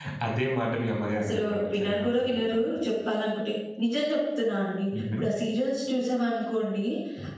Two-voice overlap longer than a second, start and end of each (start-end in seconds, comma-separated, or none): 1.2-2.7